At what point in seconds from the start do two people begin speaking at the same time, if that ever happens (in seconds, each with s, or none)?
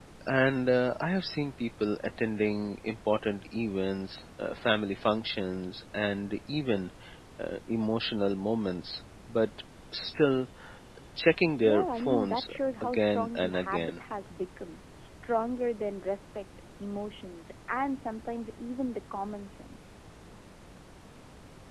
11.6 s